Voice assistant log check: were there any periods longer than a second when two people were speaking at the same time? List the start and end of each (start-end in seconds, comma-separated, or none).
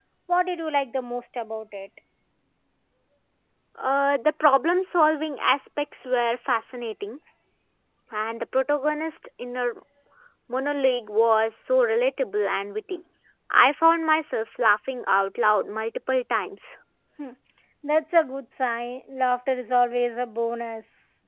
none